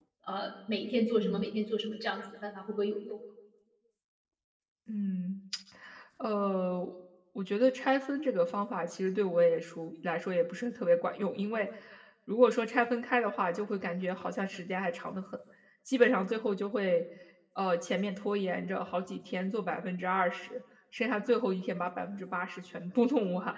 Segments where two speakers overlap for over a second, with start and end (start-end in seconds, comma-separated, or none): none